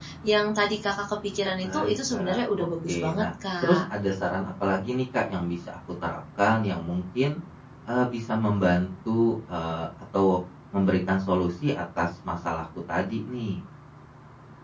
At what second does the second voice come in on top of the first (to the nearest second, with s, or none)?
2 s